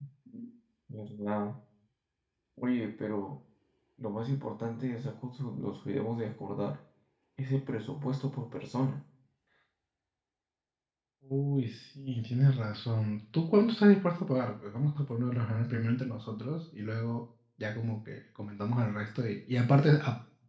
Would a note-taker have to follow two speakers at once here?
No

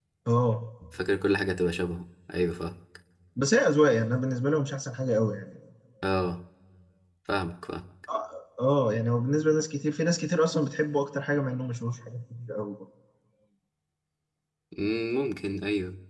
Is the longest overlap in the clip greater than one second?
No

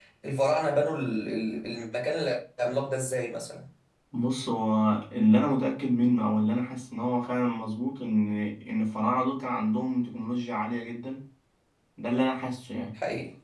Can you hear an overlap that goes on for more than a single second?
No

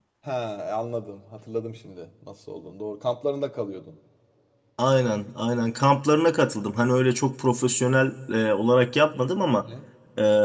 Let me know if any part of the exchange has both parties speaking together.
No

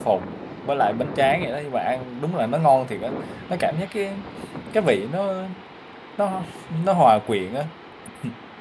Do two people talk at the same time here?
No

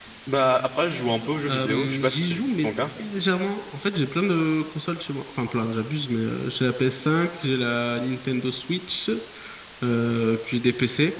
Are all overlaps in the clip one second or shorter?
No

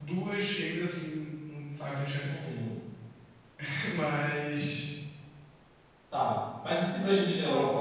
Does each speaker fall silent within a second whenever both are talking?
Yes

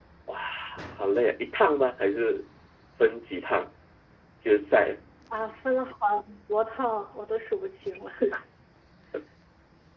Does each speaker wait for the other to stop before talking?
Yes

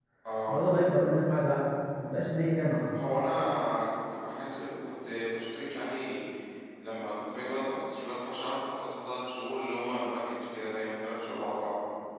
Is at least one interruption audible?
No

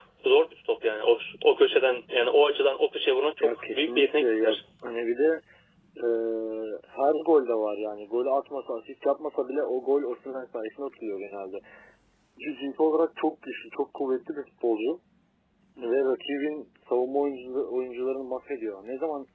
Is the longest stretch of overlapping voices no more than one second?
No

